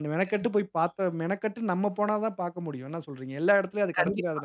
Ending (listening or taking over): taking over